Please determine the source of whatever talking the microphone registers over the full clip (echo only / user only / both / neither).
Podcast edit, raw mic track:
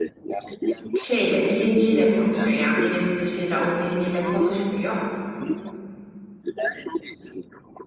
both